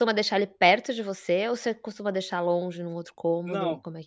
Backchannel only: No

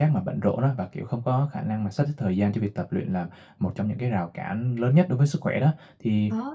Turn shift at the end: No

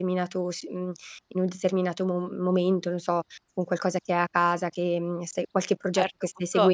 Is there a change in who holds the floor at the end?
Yes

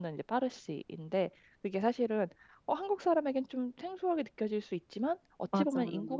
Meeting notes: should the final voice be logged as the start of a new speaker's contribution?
No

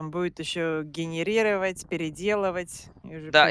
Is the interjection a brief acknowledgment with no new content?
No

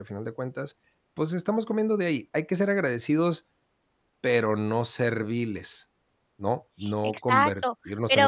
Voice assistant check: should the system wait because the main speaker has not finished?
No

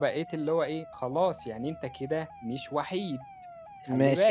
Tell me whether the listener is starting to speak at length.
Yes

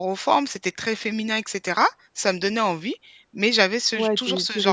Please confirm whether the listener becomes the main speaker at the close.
Yes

